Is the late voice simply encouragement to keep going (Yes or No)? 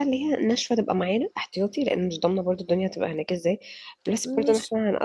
Yes